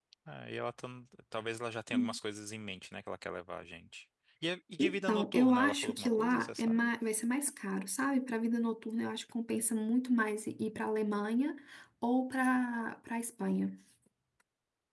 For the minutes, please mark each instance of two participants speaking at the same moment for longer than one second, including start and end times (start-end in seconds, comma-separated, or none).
4.8-6.9